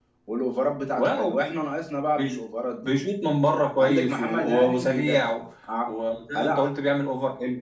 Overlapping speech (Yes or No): Yes